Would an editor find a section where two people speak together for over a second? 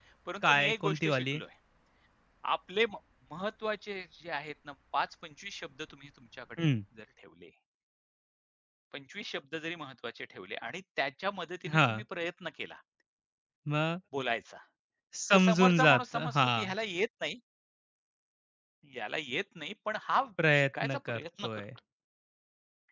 Yes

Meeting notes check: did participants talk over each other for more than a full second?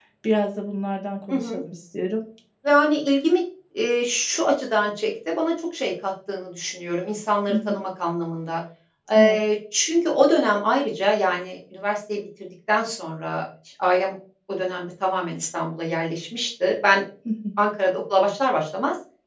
No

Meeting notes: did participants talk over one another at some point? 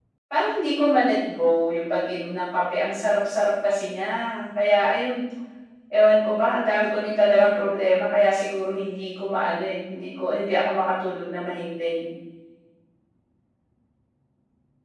No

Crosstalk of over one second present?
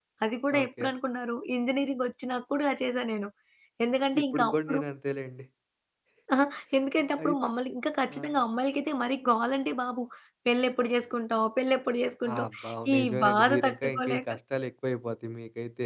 Yes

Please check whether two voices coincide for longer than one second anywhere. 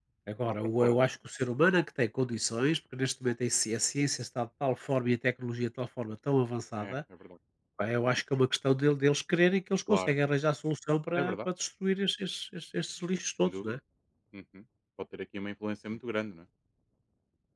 No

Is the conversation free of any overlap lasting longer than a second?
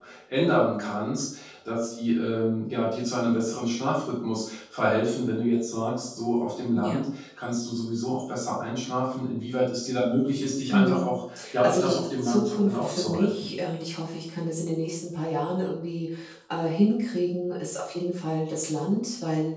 No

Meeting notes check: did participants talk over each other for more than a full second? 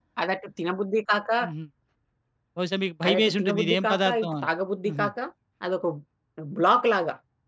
Yes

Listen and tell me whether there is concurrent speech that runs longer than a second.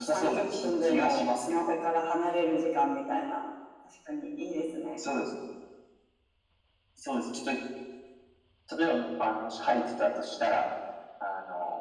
Yes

